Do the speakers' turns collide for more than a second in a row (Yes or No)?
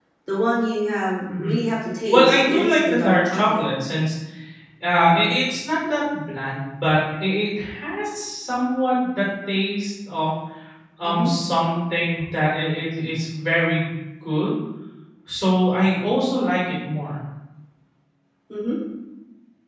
Yes